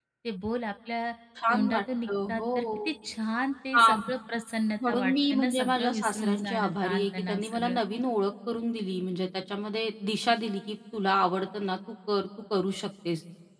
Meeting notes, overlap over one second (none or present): present